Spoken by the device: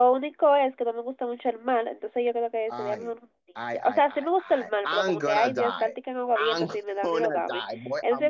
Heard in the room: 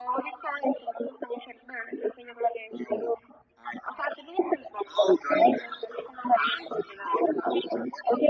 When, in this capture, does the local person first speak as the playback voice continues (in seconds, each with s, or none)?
none